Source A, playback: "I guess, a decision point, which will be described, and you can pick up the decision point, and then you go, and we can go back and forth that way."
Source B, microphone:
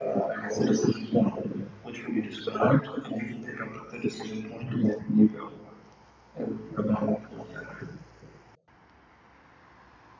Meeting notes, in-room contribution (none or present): none